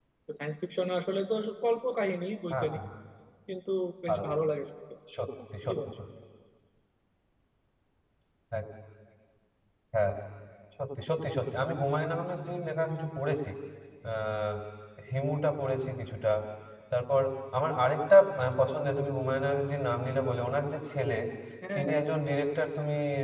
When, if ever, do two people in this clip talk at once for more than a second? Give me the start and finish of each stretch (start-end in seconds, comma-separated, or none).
none